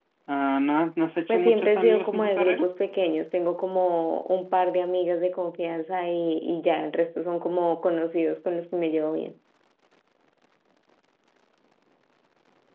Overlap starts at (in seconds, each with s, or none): 1.3 s